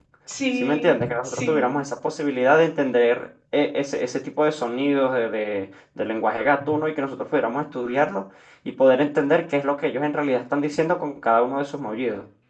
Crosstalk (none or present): present